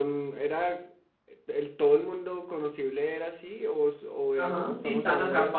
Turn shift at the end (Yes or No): Yes